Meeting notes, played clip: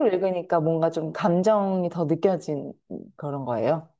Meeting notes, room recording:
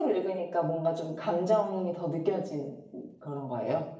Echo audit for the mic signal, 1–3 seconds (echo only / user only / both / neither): echo only